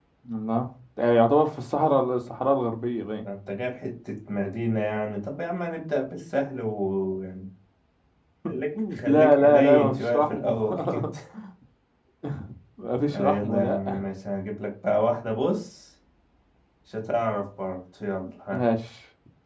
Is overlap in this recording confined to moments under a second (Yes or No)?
No